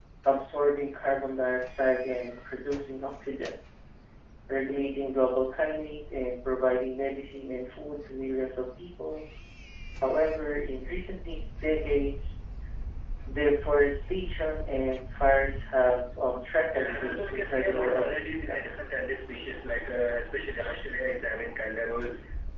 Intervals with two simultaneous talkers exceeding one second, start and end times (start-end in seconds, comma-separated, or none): 16.7-18.6